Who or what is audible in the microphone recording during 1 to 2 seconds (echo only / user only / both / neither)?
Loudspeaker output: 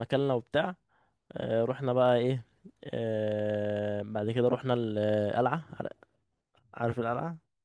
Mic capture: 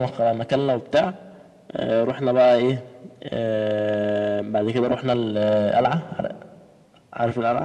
echo only